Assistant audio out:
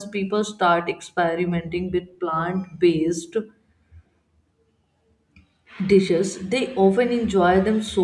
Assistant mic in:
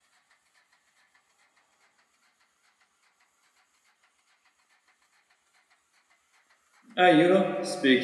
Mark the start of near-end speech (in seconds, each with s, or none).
7.0 s